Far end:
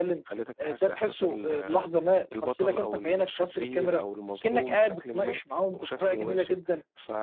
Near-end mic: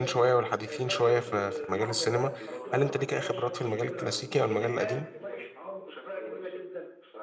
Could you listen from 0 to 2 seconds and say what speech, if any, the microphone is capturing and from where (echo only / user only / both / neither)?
both